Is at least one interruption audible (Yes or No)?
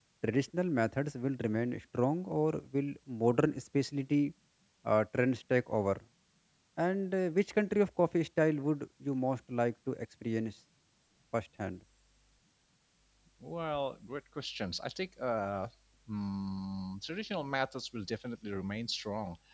No